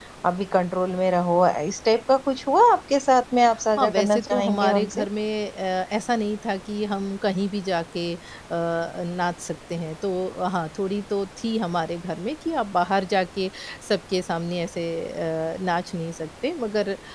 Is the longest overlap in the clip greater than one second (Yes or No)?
Yes